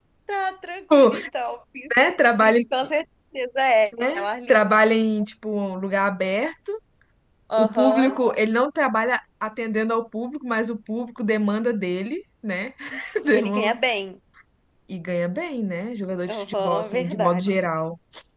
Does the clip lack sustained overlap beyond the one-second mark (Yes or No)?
No